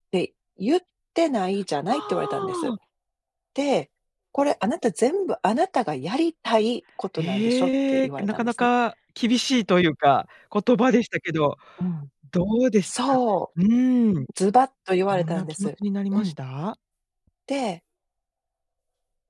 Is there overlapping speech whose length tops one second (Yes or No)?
Yes